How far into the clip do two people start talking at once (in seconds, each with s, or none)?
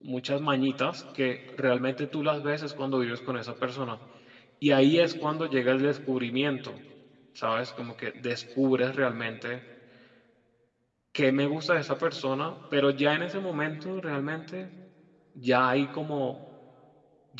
none